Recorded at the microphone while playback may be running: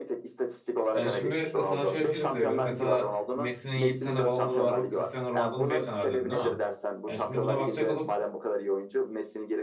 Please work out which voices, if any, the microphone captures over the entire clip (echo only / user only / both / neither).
both